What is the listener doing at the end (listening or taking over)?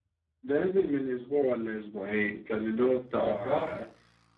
listening